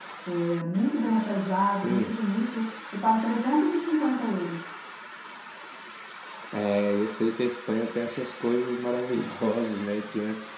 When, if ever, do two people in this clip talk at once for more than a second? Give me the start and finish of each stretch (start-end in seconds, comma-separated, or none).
none